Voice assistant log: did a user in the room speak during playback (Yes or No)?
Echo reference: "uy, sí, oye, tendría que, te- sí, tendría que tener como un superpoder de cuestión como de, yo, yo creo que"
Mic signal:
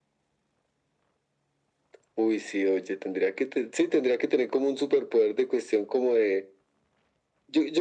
No